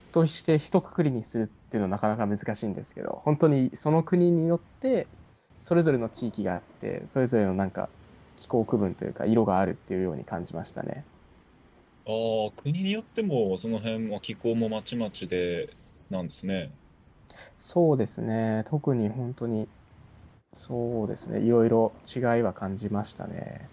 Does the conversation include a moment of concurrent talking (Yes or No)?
No